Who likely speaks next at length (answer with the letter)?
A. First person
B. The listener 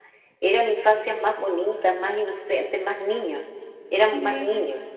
B